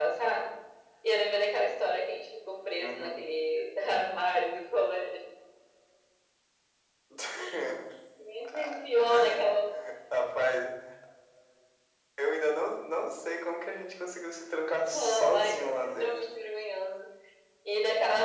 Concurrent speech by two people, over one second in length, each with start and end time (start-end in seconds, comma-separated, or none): 14.9-16.1